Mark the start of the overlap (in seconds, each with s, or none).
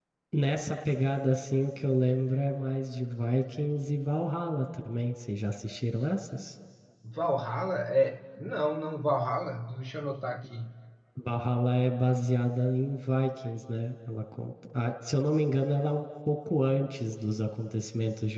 none